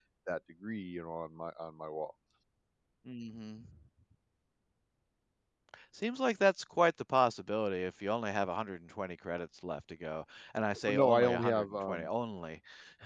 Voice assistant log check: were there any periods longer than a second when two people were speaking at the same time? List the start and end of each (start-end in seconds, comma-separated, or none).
10.9-12.1